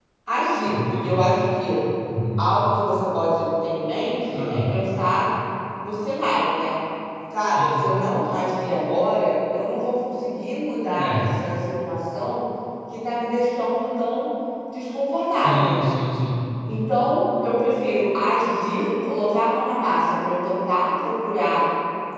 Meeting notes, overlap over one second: none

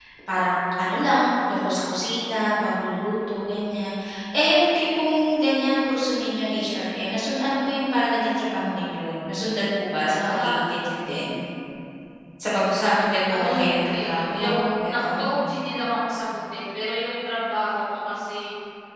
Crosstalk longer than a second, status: present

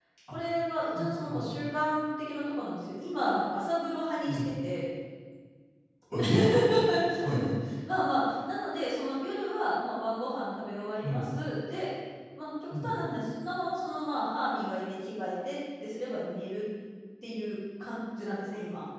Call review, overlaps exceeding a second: none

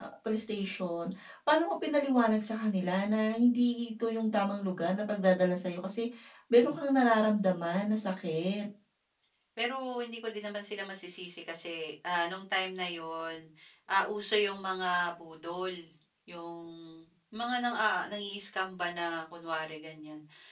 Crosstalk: none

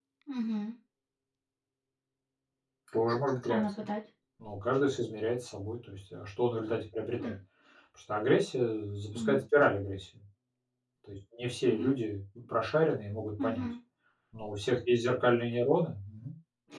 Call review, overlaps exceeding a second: none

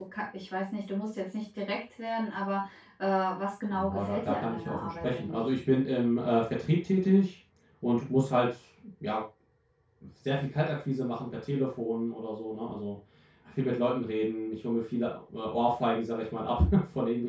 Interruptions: present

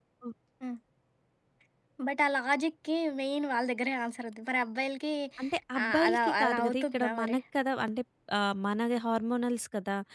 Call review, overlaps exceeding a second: present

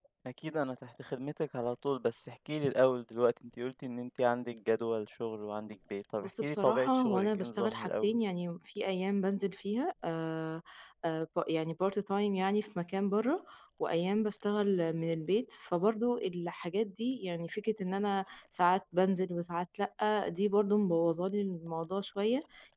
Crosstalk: present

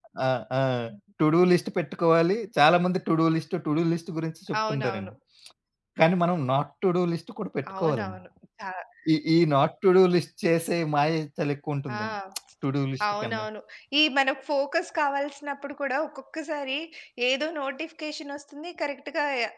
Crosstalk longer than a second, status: none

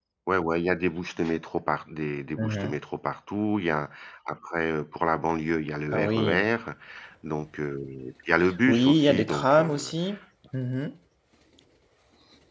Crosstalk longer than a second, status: present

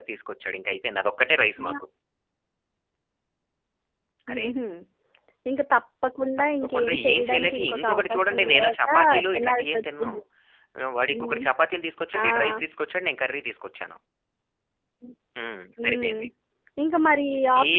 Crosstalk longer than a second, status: present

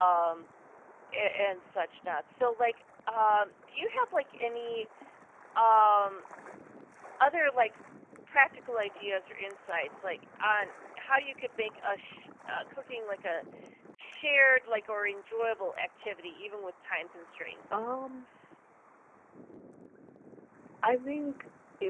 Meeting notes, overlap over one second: none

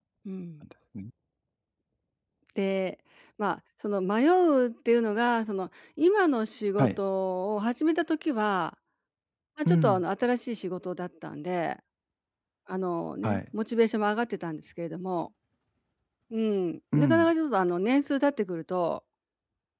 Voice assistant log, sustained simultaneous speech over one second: none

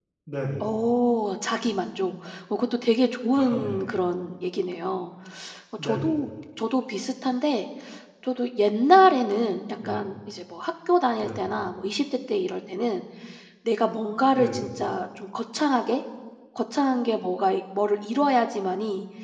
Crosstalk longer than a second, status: none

